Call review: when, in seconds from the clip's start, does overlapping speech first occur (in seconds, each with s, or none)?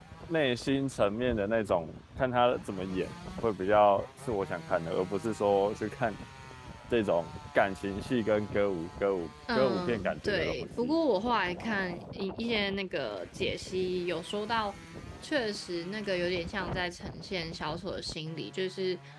9.5 s